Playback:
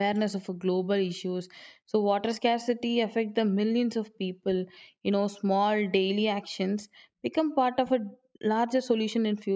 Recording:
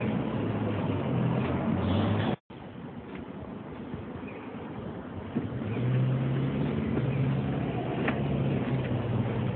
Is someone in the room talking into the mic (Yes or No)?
No